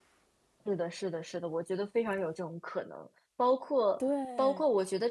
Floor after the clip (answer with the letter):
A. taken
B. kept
B